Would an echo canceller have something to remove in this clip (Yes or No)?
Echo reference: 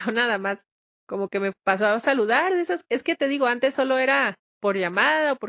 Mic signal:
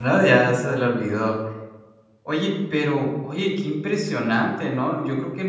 No